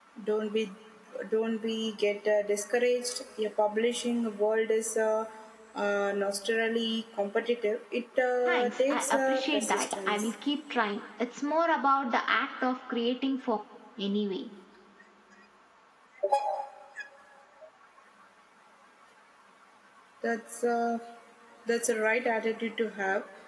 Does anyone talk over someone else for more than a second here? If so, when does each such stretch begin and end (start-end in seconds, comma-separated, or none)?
8.4-10.3